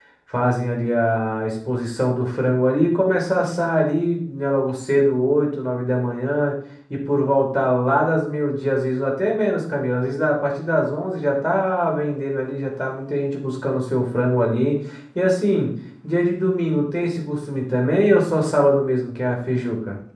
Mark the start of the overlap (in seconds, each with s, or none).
none